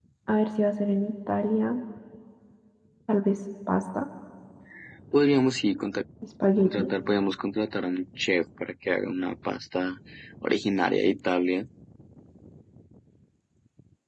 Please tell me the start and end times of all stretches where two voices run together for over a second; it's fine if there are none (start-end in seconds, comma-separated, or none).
none